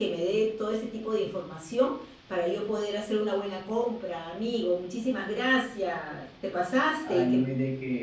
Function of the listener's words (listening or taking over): taking over